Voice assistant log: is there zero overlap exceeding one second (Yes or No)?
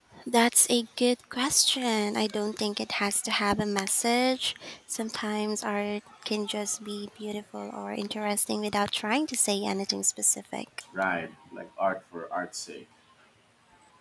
Yes